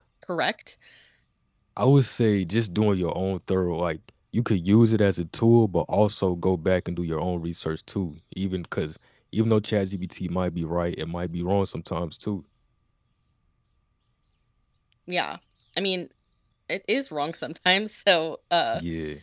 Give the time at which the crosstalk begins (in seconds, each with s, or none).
none